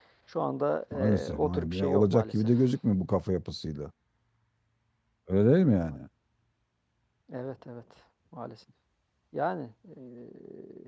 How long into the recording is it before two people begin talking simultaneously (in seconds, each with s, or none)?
0.9 s